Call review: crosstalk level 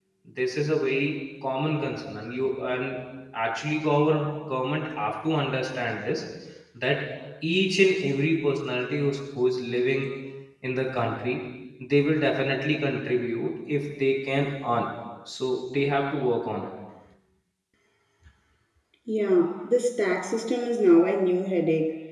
none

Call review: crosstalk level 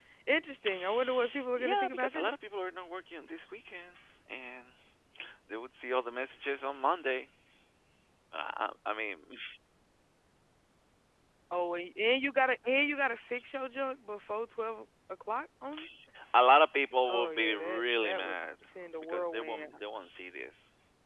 present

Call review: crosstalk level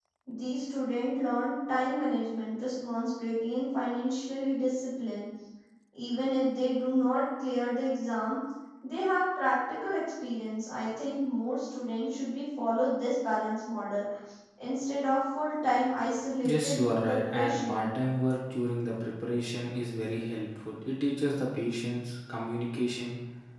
present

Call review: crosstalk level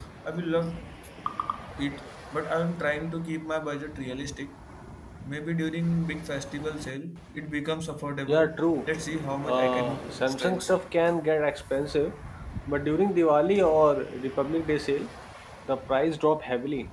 present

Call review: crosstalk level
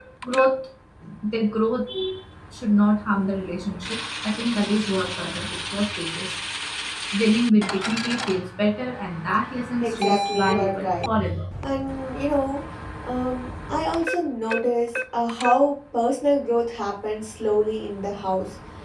present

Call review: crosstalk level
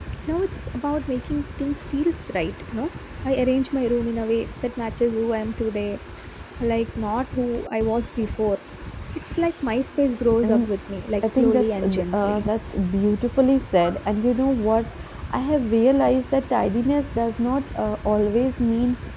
present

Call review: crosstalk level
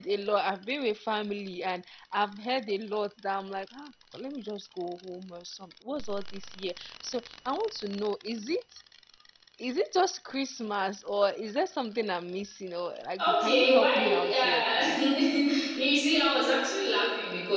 present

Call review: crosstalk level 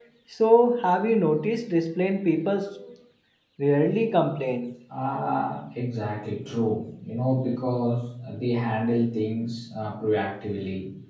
none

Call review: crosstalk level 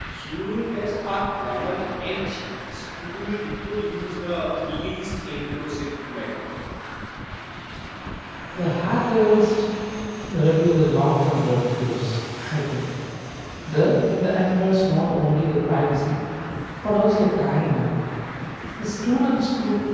none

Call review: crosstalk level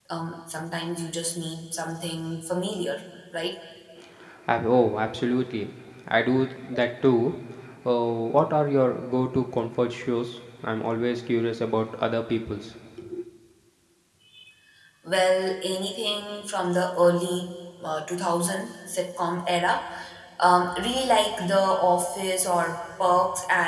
none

